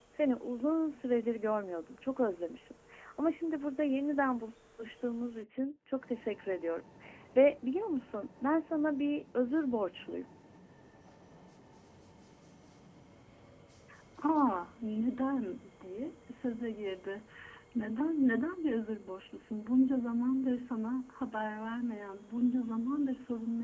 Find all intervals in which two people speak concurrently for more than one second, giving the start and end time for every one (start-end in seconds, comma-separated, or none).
none